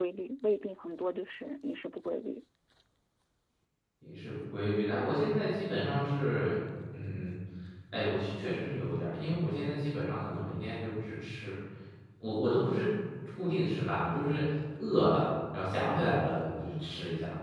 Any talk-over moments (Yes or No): No